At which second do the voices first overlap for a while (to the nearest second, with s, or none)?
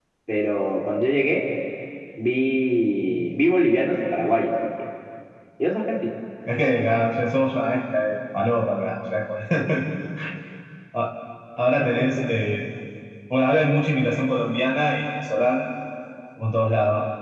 none